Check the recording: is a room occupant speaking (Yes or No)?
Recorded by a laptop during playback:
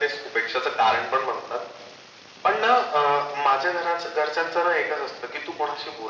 No